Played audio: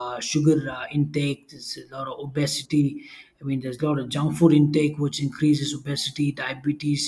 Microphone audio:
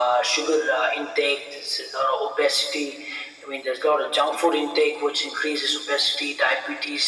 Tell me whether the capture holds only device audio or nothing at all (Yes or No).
Yes